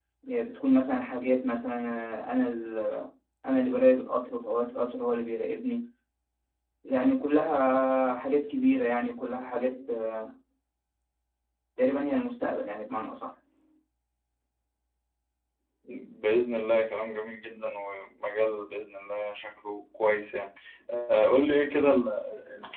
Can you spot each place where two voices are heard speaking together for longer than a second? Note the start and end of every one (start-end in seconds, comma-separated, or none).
none